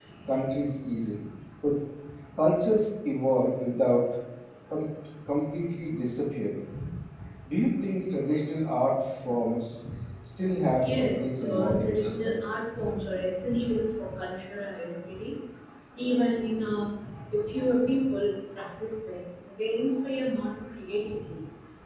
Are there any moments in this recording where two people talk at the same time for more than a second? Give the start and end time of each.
10.8-12.3

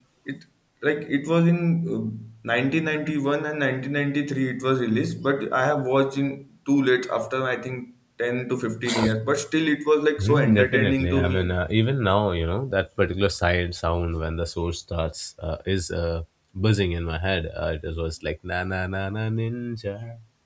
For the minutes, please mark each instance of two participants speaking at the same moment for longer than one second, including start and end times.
10.2-11.5

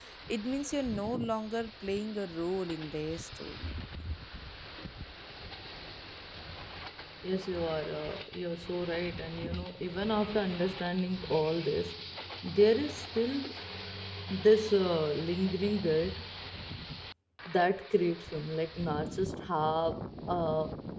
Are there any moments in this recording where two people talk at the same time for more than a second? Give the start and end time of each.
none

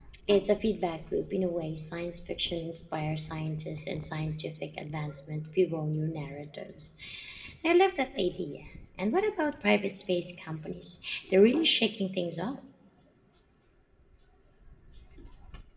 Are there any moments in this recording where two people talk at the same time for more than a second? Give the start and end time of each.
none

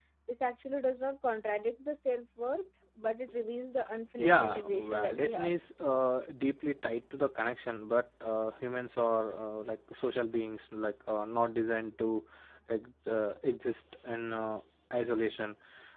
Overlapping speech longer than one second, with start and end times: 4.2-5.5

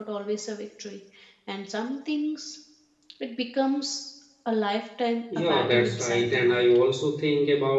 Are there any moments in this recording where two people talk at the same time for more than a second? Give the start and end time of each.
5.4-6.8

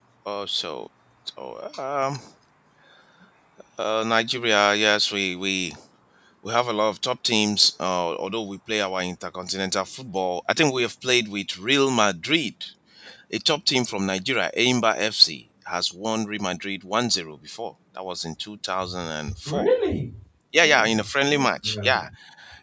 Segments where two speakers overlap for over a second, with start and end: 20.6-22.1

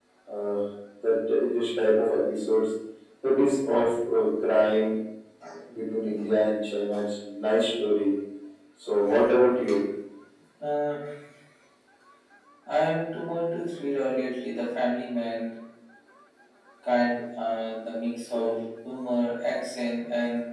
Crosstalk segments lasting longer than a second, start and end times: none

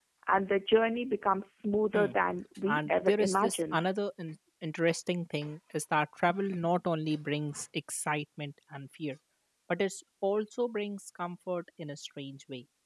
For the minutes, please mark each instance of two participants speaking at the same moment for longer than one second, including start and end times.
2.7-3.9

